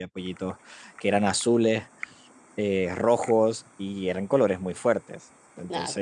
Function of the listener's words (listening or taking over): listening